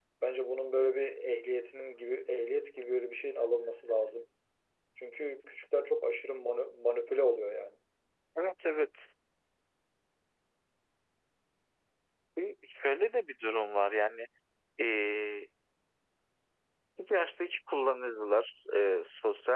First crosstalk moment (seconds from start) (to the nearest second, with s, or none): none